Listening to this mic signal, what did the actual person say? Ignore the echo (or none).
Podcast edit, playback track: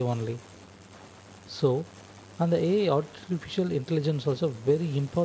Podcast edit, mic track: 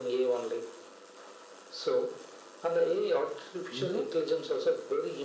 You know,